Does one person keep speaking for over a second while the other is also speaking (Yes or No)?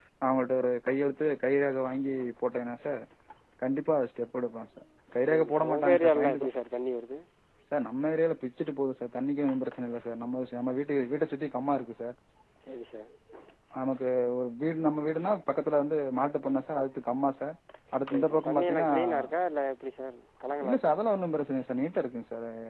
Yes